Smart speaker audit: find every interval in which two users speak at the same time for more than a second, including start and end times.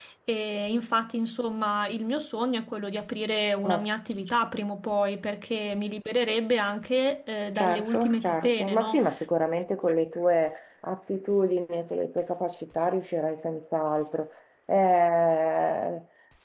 7.5-9.0

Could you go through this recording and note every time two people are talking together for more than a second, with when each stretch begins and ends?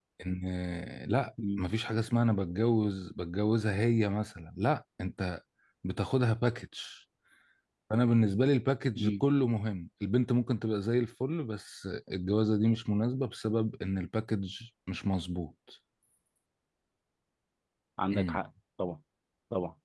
none

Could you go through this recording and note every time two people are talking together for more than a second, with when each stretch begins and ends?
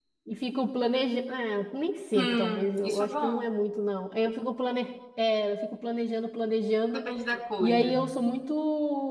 2.2-3.5

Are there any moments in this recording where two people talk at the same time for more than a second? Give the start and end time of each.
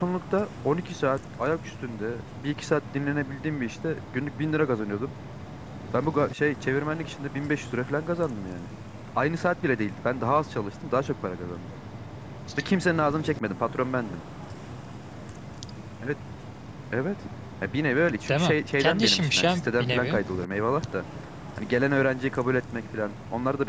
18.3-20.2

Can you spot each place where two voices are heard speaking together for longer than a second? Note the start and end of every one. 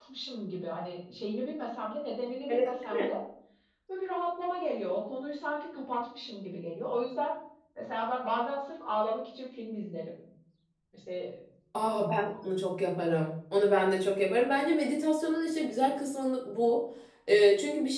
none

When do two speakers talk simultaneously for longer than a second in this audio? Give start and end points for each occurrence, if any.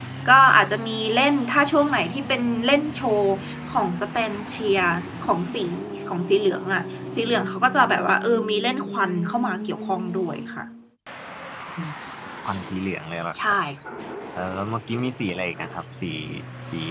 none

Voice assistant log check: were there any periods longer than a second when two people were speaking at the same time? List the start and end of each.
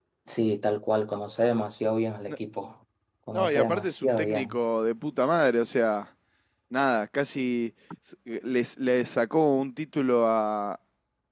3.3-4.6

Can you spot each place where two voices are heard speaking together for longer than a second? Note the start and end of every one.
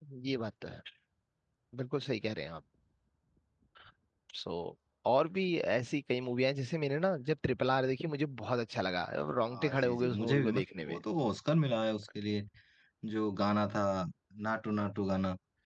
9.5-11.0

